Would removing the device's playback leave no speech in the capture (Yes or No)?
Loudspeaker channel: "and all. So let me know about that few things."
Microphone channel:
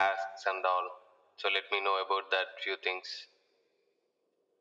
Yes